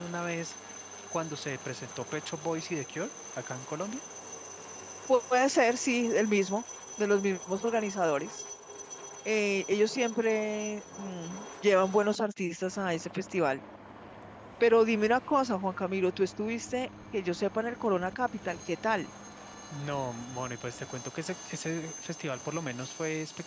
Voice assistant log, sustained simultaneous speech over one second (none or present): none